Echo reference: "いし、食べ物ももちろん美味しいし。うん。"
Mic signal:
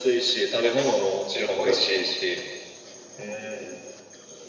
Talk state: echo only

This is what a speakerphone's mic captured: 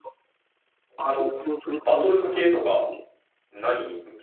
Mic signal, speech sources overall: both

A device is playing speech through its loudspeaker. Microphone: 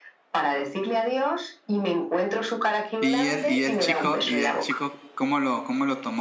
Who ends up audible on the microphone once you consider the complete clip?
both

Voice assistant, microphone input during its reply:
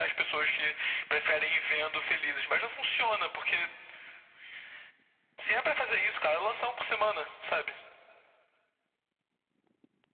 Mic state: echo only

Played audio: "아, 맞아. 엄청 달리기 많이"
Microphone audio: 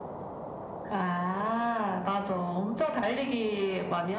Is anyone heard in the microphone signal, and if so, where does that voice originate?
echo only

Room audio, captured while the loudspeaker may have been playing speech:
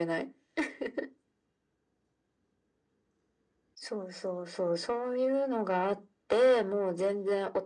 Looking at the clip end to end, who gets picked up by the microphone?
echo only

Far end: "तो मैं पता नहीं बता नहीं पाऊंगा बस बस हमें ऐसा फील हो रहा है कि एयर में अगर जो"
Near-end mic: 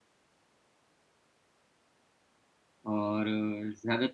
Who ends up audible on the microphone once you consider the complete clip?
user only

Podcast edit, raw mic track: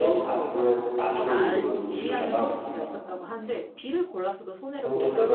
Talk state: both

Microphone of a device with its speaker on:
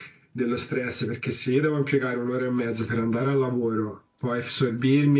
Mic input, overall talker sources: echo only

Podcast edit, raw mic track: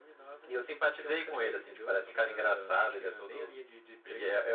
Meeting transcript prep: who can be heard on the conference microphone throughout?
echo only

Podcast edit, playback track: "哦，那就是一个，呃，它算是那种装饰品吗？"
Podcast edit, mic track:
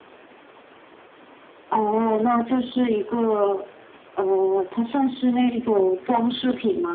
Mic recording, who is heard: echo only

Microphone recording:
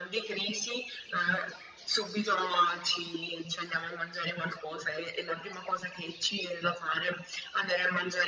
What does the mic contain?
echo only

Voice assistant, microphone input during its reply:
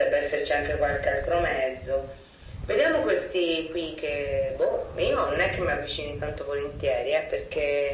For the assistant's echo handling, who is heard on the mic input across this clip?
echo only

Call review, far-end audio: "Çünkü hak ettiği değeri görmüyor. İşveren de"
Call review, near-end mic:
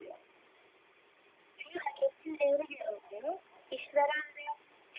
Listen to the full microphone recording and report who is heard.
echo only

